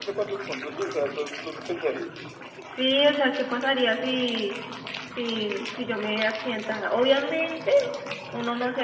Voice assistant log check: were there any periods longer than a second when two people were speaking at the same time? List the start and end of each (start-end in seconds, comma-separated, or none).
none